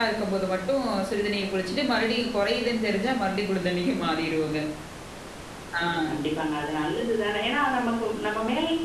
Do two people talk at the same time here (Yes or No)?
No